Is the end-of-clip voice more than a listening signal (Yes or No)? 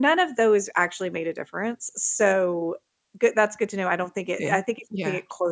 No